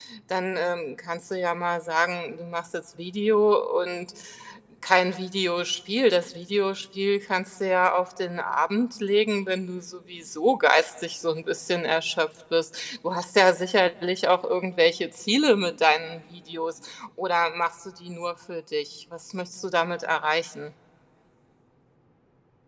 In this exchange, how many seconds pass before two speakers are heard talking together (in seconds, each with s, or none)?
none